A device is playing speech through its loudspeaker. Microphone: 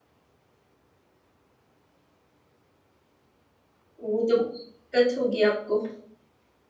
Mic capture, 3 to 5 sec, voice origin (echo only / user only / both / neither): user only